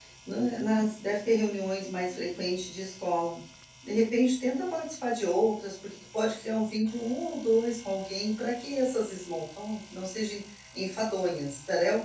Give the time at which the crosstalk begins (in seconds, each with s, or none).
none